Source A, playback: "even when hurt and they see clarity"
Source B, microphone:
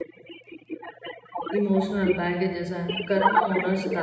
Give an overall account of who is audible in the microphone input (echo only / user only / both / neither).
both